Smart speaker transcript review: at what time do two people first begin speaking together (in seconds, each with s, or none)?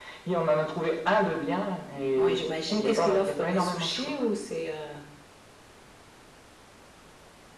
2.2 s